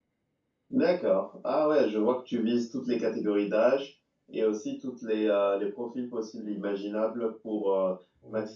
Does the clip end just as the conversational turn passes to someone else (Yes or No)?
No